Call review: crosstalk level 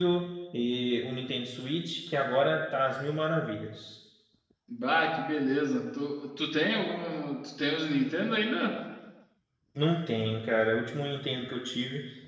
none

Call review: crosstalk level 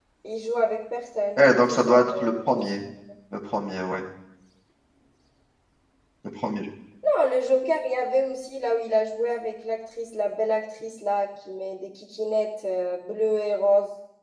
present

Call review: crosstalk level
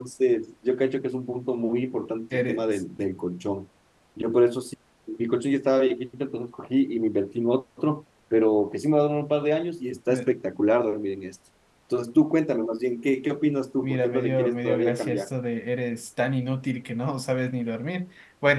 present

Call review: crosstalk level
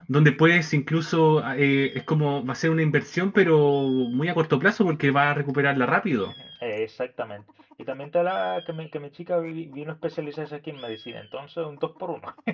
none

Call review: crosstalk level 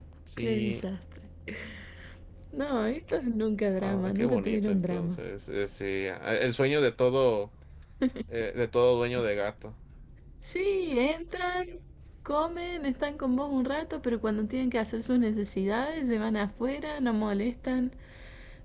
present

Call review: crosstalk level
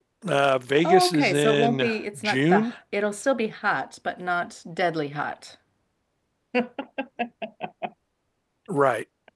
present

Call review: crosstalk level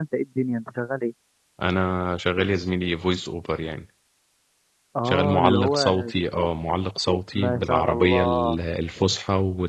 present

